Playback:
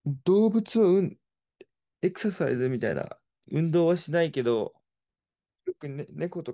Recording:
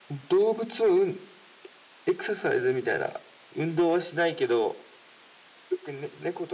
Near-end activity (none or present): none